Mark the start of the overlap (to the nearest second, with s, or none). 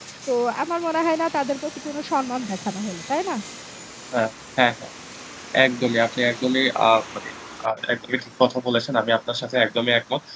none